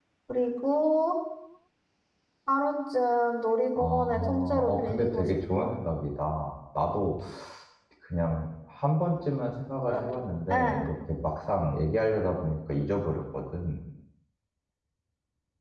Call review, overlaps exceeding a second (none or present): present